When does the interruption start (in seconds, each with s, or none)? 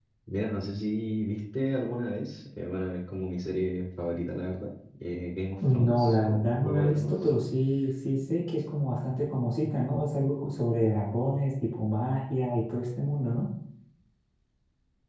5.6 s